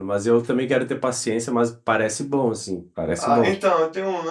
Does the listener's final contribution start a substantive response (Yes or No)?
Yes